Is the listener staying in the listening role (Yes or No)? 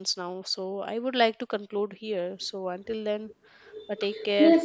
No